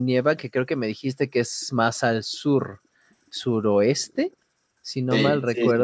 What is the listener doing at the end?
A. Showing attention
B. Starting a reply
B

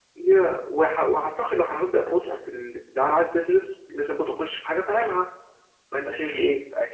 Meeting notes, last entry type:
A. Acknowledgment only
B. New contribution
B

